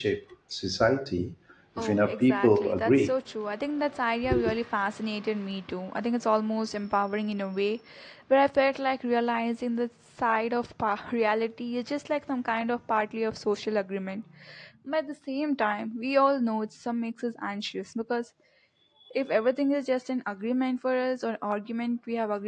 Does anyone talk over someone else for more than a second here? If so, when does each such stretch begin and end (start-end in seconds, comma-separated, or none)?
1.8-3.1